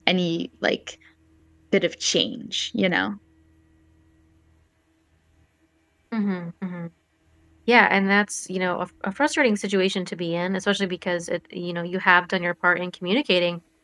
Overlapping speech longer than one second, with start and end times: none

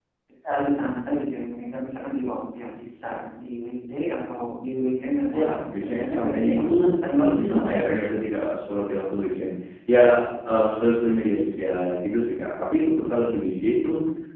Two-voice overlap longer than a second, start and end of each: 5.3-8.2

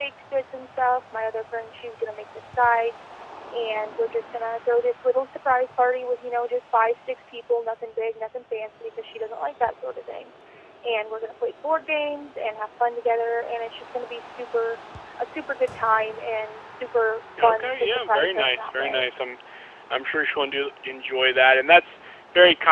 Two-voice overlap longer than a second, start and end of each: 17.4-19.1

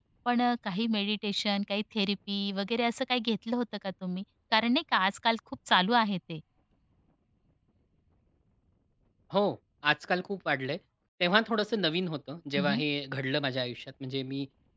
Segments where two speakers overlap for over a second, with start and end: none

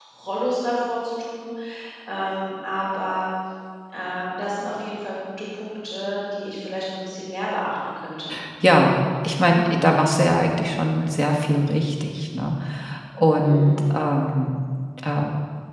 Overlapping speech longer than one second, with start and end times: none

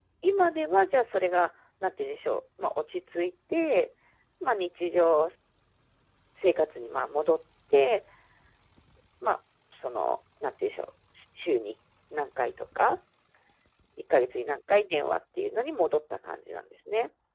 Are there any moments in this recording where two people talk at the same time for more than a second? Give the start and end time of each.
none

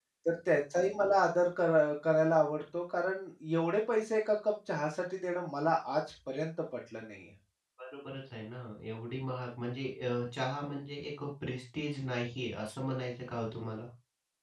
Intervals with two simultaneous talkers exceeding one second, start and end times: none

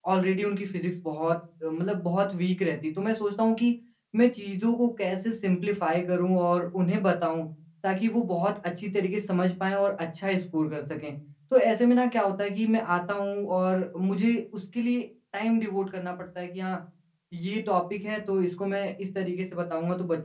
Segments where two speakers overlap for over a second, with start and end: none

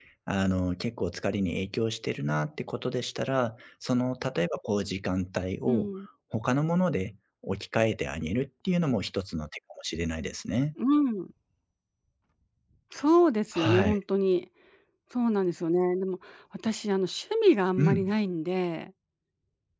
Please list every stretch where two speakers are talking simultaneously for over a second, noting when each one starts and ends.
none

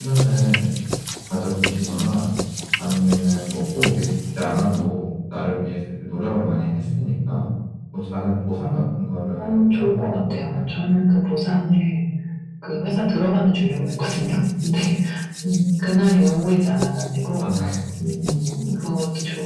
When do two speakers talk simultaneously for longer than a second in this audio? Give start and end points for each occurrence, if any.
9.4-10.7

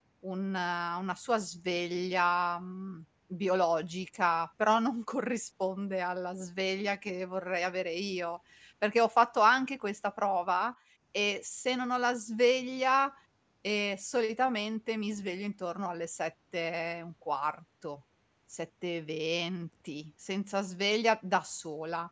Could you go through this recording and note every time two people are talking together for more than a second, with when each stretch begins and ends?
none

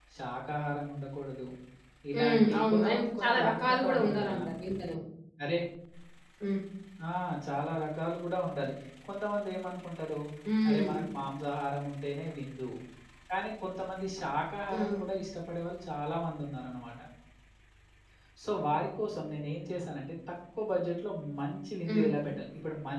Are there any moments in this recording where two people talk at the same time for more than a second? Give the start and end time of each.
2.2-4.4

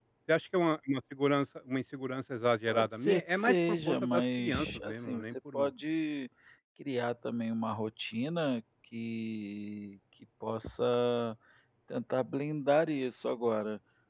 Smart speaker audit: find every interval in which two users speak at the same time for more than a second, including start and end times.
2.7-5.7

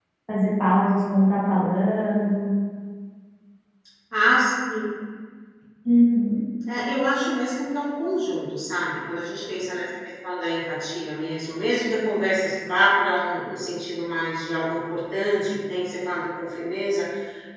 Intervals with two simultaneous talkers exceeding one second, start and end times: none

